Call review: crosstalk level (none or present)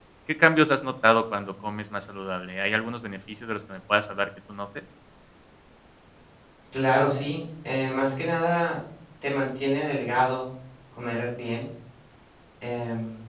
none